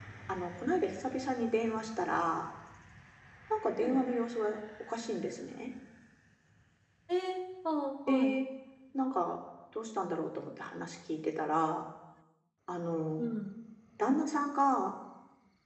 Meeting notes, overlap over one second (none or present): none